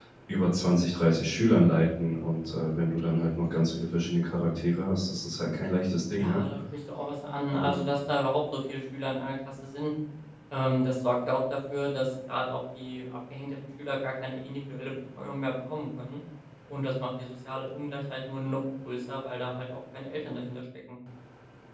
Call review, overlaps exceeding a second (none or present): none